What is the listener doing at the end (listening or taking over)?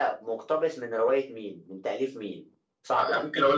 taking over